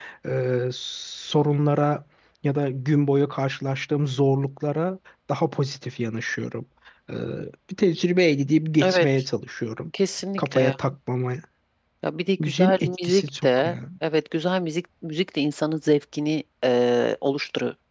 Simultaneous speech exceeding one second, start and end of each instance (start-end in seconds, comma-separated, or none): 12.4-13.8